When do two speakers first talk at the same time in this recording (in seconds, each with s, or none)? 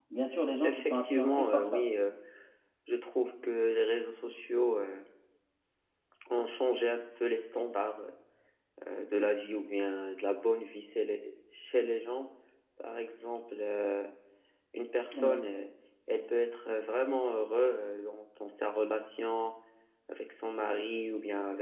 0.6 s